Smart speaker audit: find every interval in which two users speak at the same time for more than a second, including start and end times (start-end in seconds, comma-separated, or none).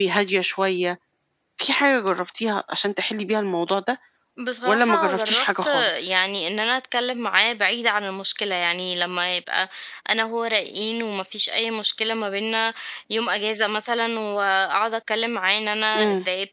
4.6-6.1